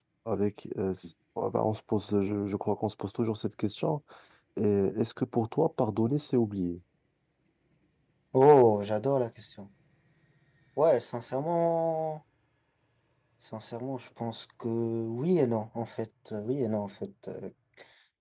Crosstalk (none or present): none